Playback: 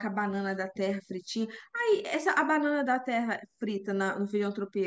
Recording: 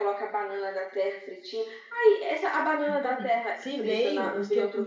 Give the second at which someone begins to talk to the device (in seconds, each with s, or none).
2.8 s